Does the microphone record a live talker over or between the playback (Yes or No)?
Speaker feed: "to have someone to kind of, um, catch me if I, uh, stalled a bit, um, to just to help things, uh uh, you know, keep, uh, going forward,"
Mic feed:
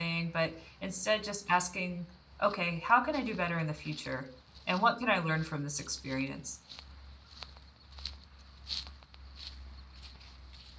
Yes